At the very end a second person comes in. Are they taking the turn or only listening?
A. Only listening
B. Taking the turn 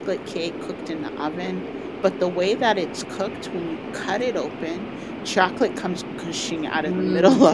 B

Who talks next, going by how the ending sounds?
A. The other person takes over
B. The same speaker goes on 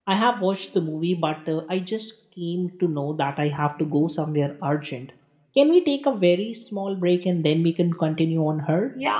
A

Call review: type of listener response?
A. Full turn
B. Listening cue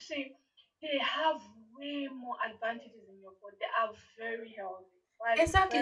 A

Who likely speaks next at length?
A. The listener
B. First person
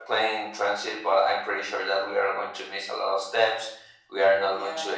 B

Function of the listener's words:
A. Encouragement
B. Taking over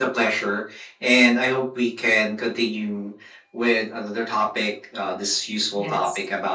A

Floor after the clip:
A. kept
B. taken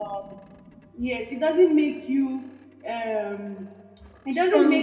A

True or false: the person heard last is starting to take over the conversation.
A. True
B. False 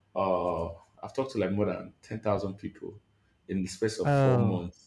B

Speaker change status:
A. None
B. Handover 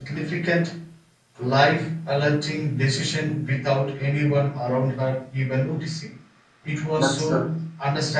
A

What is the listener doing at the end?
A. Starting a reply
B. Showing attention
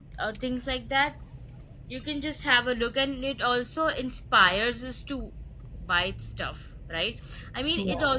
B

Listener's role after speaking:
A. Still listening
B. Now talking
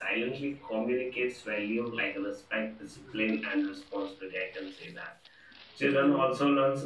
A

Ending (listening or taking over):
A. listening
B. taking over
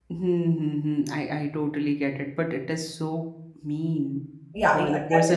B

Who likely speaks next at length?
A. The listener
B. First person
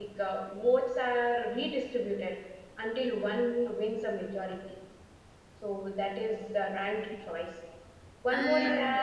B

